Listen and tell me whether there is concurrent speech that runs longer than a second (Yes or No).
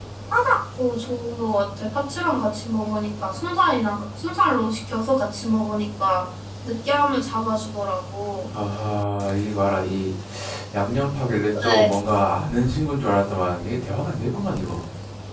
No